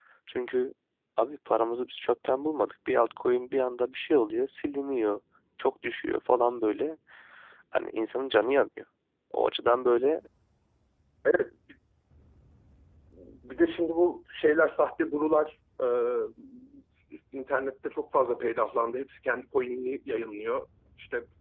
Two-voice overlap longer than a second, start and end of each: none

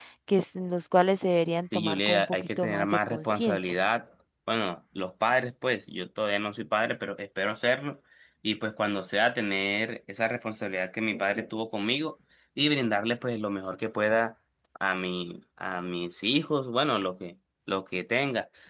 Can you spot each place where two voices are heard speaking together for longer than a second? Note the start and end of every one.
1.7-3.7

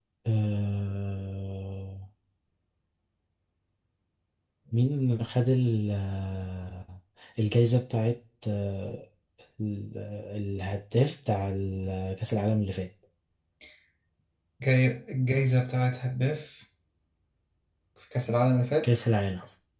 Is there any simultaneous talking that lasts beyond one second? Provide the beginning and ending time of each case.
none

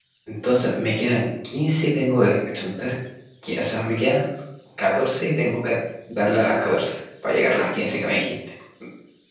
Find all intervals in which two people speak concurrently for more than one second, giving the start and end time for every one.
none

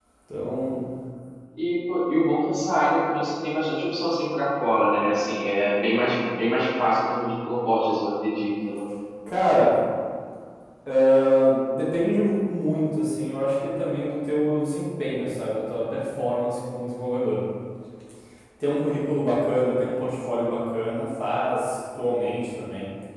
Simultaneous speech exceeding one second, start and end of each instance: none

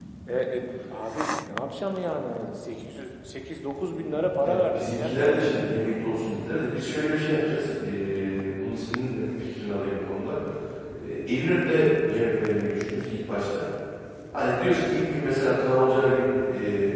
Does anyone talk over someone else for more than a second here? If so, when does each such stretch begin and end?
4.4-5.7

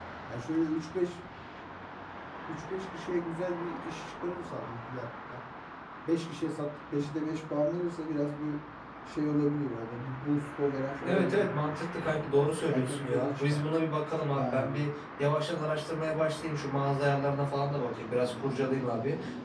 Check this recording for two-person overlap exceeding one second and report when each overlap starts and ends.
11.0-13.6

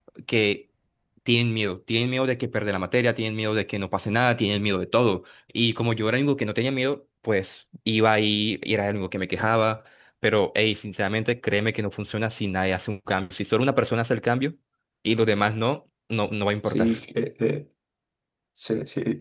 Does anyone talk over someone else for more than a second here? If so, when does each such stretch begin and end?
none

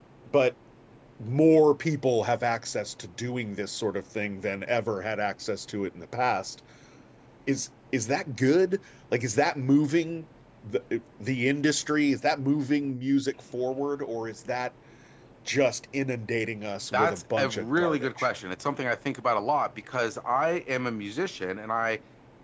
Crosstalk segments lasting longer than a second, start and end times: 16.9-18.3

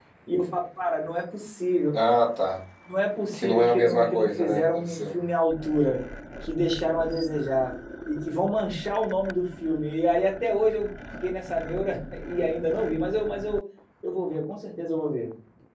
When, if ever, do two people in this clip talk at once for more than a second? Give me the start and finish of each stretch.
3.3-5.2

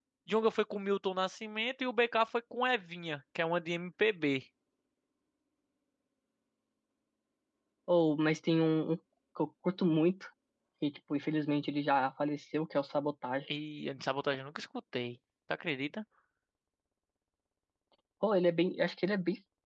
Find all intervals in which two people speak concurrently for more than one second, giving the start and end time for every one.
none

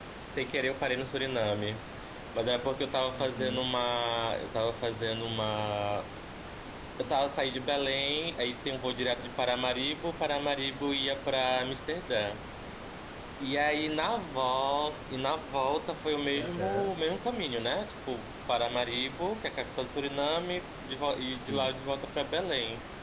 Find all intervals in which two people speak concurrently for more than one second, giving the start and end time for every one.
none

